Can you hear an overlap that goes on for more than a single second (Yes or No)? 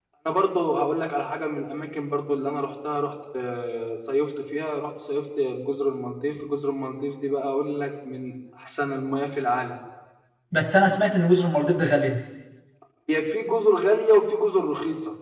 No